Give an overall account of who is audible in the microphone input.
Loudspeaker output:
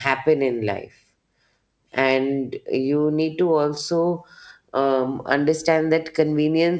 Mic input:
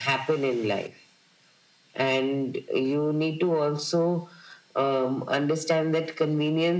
echo only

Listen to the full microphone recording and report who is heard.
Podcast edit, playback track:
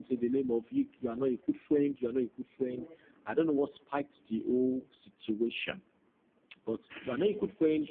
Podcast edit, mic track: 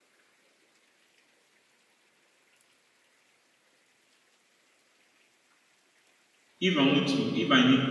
user only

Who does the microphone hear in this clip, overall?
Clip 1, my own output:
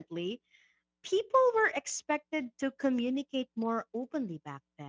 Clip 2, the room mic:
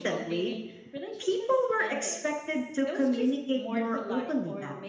both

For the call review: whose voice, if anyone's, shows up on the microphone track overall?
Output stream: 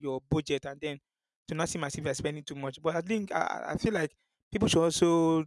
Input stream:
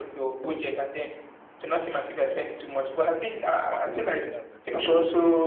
both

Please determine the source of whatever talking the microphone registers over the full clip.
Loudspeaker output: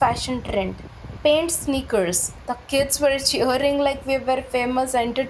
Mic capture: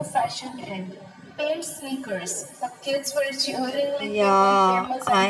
both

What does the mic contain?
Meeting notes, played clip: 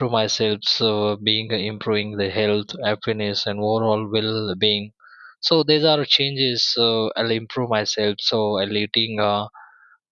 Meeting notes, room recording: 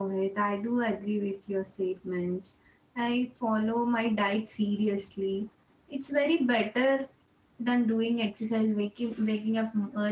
user only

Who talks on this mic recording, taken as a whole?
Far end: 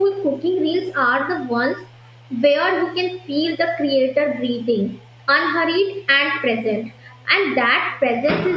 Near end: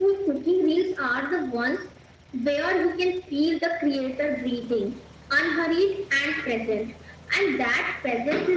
echo only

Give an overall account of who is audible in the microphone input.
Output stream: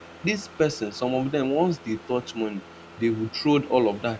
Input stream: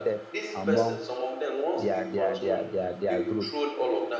both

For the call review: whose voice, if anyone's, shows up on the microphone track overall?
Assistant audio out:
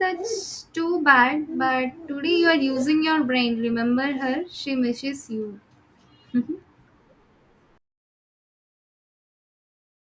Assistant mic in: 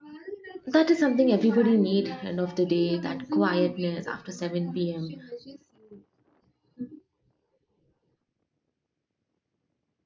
both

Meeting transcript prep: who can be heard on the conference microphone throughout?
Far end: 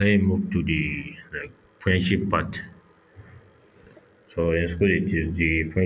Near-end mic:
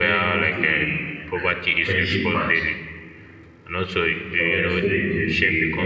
both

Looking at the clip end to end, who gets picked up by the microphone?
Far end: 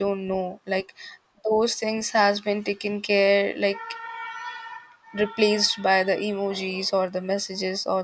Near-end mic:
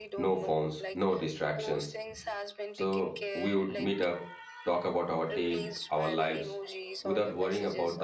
both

